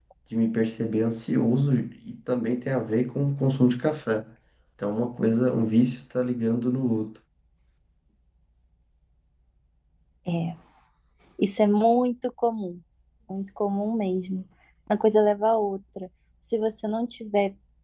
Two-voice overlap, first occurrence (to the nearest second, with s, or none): none